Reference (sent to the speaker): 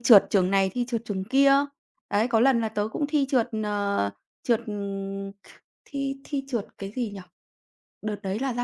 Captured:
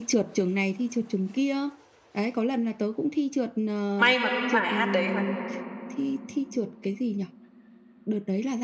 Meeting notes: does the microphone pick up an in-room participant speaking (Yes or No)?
Yes